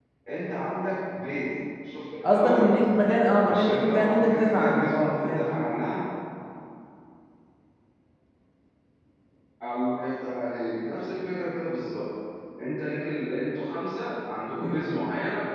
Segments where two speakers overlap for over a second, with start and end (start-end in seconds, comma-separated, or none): 3.4-5.4